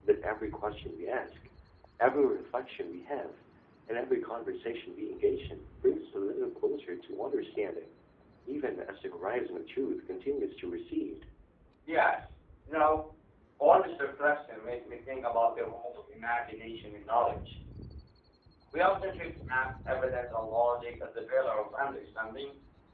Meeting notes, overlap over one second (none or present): none